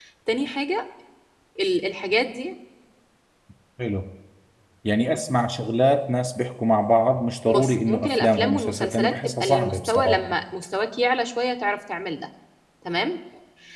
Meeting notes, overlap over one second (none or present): present